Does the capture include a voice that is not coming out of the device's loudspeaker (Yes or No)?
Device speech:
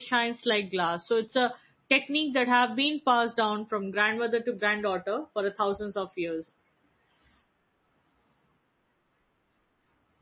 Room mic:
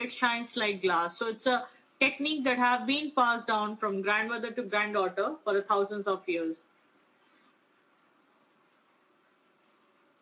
No